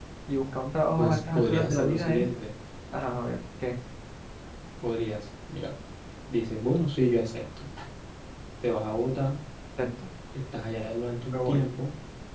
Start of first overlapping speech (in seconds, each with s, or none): 1.0 s